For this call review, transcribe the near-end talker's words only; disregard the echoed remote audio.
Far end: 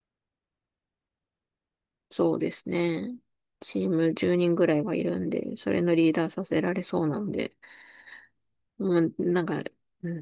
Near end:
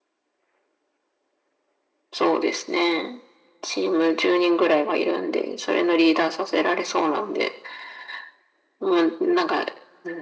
none

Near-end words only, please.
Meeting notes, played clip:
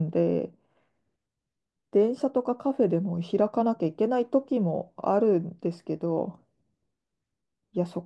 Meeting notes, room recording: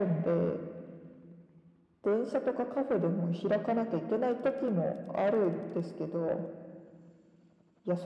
none

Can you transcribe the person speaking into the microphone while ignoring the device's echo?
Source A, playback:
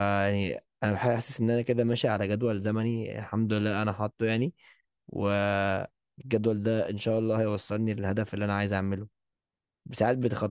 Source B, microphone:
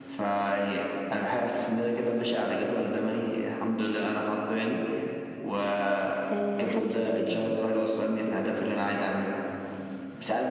آه حاجة شبه كده يعني

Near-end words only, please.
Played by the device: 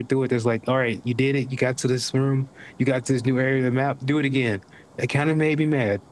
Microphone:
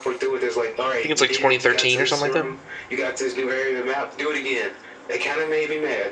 think it's like 2013 or something like that.

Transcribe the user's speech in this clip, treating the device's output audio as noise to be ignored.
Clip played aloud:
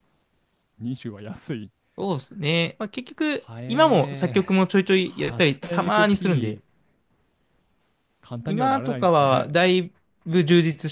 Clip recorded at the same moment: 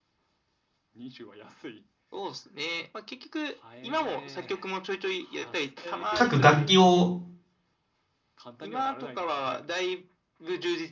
各楽器を、

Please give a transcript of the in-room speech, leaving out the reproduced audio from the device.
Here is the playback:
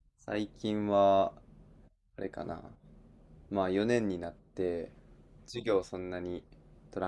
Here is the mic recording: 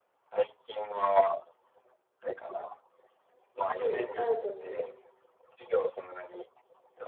うん、あると思う。

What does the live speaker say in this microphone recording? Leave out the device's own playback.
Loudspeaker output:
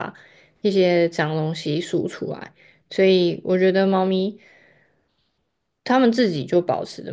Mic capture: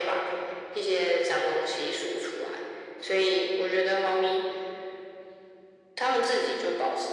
none

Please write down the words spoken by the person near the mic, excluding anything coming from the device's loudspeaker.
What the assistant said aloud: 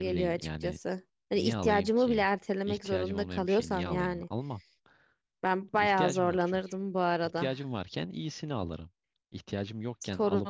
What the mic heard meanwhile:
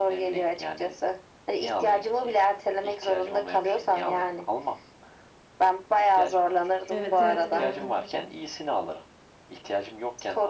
Evet evet gördüm.

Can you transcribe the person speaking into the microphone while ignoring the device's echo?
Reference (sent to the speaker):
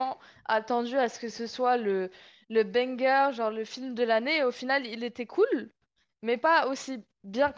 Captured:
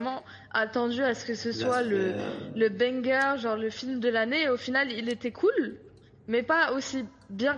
l'aspect, euh,

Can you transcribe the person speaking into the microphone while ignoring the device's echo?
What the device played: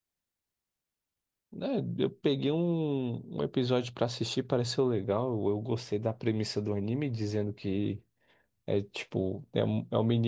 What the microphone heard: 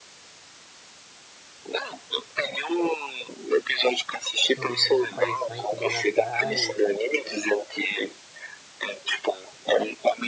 são aparições sobrenaturais,

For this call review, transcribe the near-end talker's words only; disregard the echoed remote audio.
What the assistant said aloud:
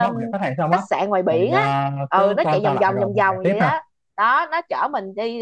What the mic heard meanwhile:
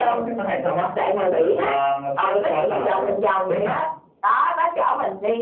rồi

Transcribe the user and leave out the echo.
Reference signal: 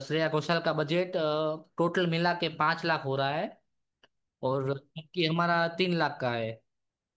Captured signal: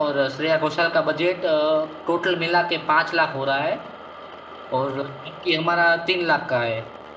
none

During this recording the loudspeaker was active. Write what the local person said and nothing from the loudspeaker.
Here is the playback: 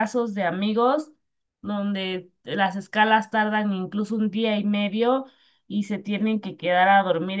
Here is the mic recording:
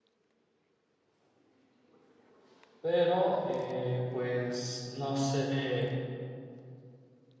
pero eh, pues no sé.

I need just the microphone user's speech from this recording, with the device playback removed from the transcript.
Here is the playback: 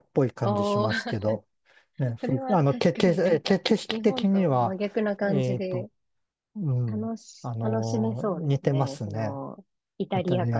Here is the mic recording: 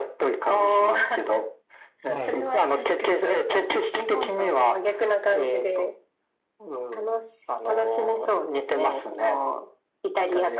はい。

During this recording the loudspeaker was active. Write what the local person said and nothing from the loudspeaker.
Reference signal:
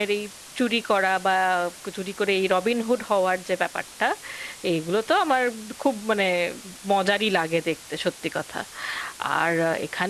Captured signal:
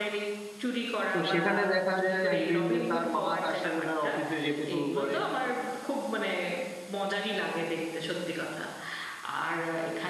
তো সেখানে দেখা যায় একদিন যে তার মা তার সাথে তার অফিসে যেতে শুরু করে

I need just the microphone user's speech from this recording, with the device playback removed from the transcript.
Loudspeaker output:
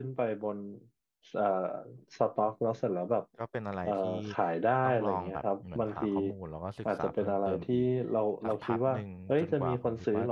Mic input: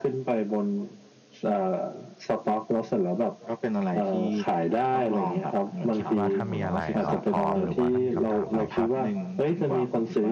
คิดว่าถ้ามีอะไรเราพร้อมหรือว่าถ้ามีคำถามอะไรก็

